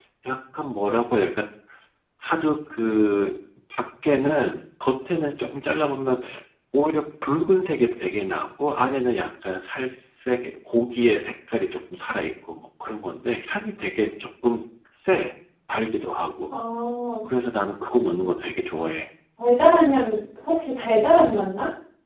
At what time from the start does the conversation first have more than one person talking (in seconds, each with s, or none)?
none